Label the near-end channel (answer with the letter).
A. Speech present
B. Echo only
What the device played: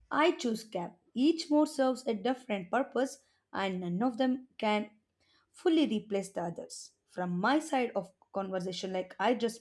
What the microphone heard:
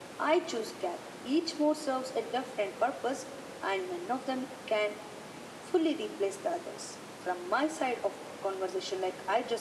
B